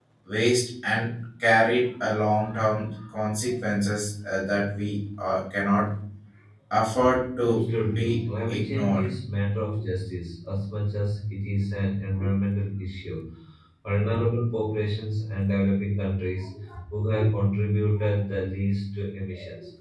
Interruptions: present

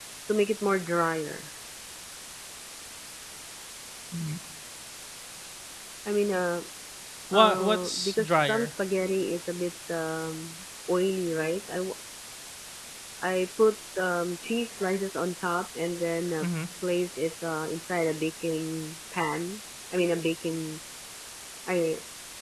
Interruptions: present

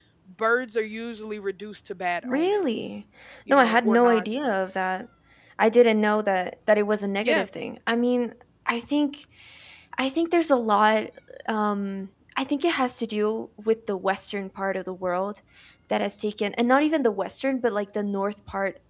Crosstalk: present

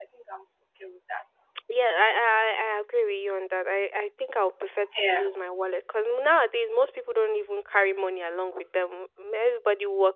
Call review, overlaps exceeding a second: none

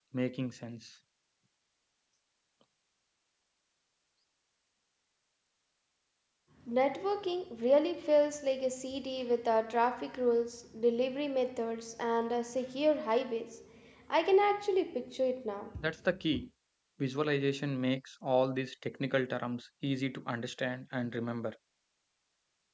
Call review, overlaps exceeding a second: none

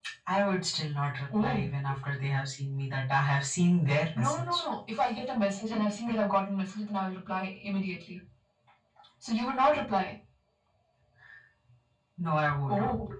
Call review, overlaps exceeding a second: none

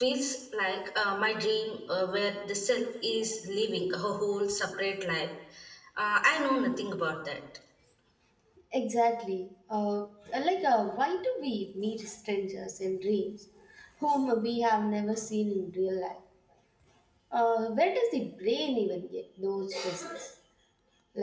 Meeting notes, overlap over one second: none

